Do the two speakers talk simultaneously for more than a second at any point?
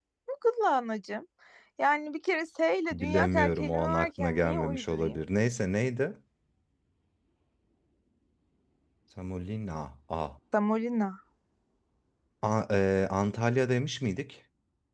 Yes, from 2.9 s

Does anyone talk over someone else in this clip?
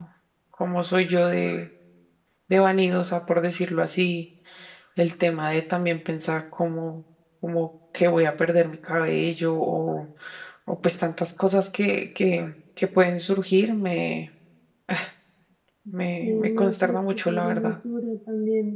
Yes, from 16.1 s

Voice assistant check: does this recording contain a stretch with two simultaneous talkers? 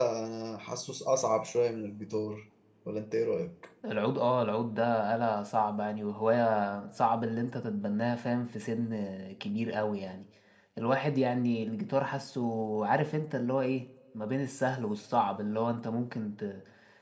No

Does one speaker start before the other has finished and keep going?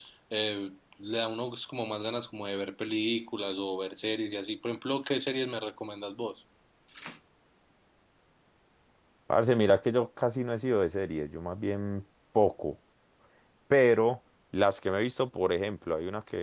No

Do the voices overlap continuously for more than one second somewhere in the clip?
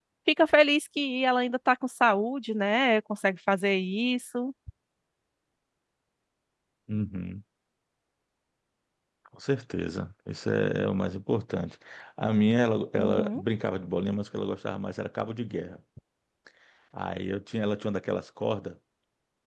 No

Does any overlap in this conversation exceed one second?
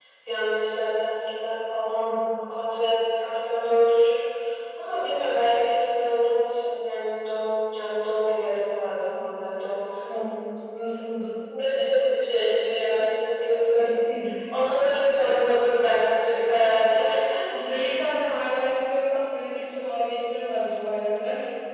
No

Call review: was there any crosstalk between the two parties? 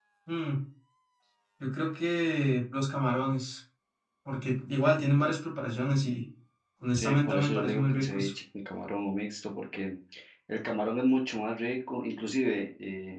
Yes, from 7.0 s

